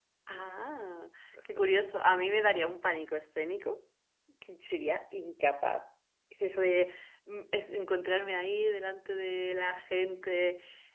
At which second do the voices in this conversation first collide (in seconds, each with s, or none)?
none